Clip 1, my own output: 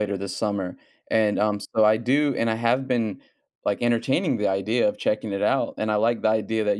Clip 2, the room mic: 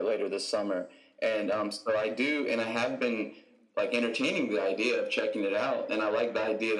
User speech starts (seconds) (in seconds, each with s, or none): none